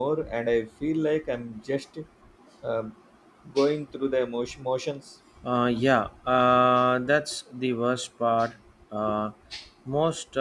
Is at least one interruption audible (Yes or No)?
No